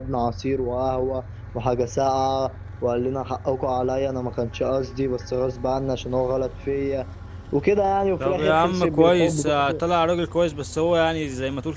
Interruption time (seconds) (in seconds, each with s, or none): 8.2 s